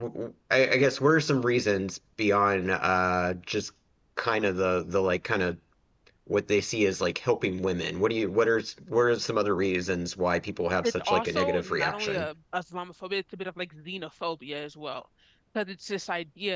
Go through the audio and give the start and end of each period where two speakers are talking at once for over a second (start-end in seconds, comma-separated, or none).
10.8-12.3